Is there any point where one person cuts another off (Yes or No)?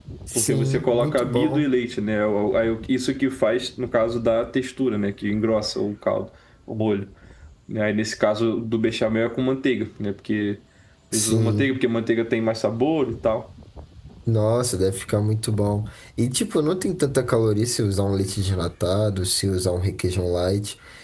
Yes